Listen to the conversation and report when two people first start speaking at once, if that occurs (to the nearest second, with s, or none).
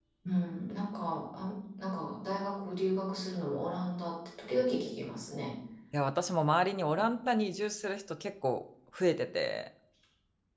none